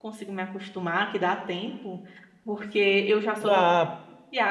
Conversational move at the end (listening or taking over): listening